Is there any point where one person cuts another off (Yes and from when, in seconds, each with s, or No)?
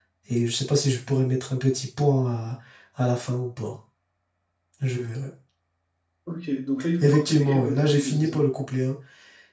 Yes, from 7.0 s